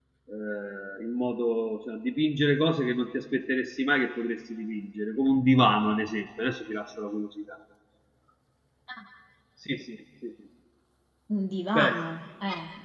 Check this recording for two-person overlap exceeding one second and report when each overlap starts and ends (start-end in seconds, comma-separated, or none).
none